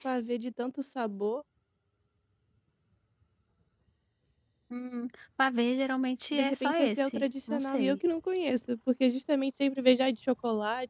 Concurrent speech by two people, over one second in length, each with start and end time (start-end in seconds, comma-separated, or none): 6.3-8.0